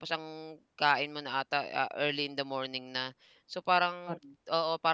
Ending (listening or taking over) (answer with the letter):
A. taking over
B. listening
B